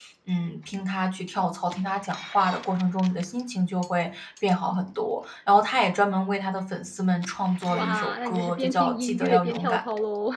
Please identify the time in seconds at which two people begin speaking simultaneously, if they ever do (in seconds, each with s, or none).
7.7 s